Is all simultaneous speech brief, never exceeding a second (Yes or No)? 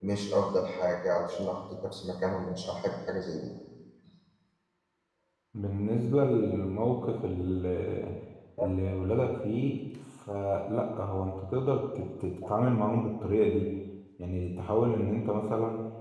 Yes